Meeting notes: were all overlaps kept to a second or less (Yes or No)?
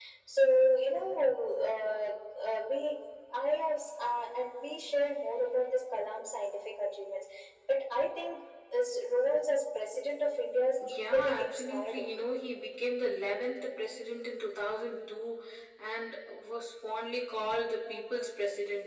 No